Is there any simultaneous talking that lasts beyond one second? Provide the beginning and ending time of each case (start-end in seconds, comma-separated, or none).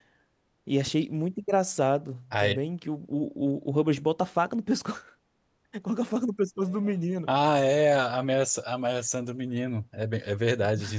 none